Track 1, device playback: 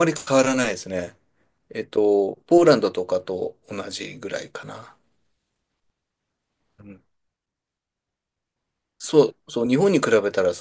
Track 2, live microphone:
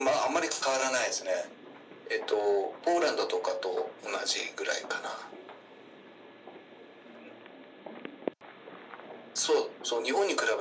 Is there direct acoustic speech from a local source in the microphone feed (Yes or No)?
No